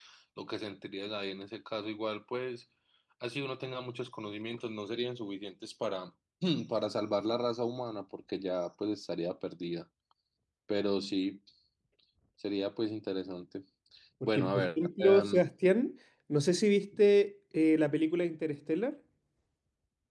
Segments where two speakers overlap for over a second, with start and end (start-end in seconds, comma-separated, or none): 14.2-15.5